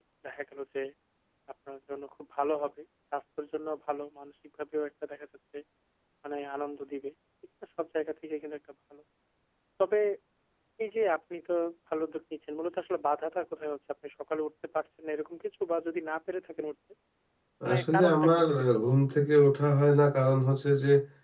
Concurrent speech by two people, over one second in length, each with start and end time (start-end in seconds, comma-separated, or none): 17.7-18.9